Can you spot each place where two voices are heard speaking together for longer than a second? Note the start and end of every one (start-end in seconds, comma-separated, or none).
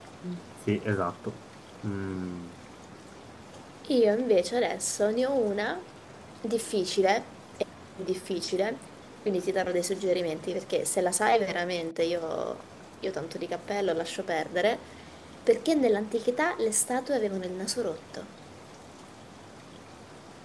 none